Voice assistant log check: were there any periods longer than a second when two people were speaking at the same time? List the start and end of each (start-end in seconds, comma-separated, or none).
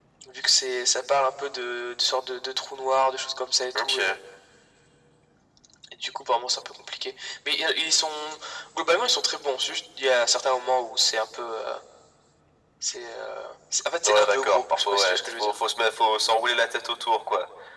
14.0-15.5